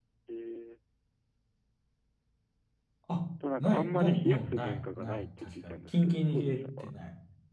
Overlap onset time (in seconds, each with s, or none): 3.6 s